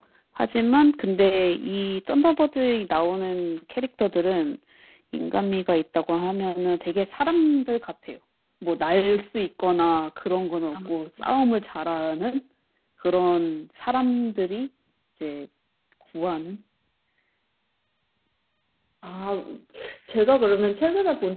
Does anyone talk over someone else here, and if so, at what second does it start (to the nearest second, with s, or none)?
none